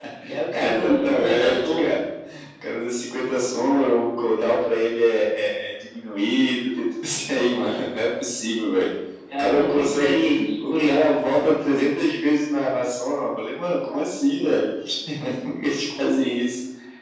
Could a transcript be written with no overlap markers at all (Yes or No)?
No